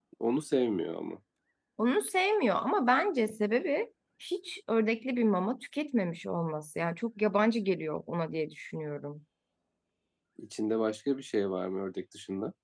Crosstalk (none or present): none